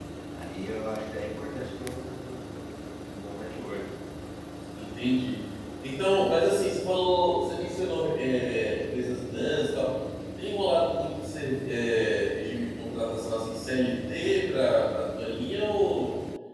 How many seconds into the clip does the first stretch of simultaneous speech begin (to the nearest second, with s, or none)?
none